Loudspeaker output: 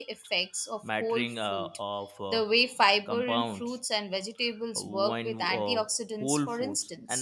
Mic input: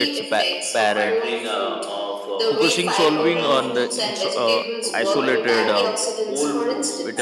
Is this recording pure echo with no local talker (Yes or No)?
No